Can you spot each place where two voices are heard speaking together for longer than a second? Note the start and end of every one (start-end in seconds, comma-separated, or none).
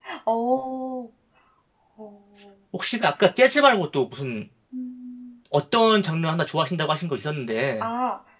none